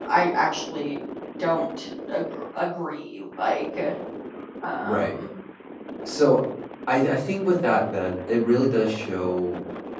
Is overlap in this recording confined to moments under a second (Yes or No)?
Yes